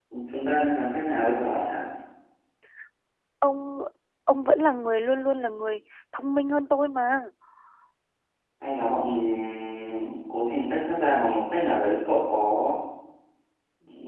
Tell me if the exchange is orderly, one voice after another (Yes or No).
Yes